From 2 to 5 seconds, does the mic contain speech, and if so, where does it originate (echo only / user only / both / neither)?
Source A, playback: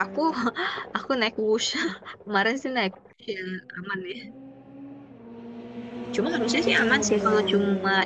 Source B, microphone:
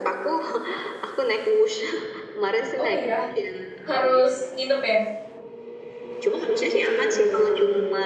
both